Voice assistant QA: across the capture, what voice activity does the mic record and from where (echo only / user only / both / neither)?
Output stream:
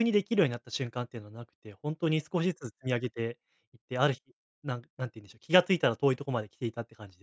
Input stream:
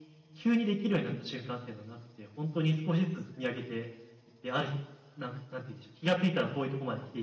echo only